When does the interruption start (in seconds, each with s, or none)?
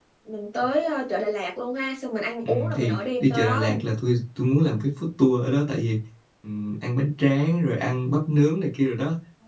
2.4 s